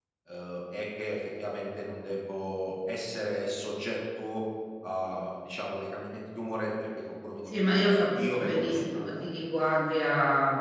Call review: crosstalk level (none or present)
present